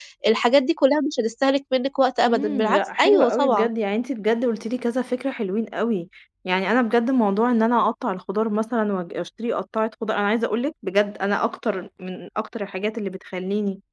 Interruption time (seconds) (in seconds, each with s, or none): 2.3 s